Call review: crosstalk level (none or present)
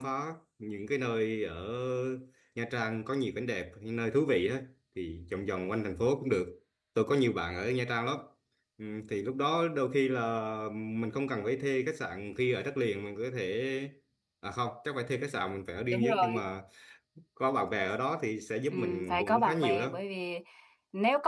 present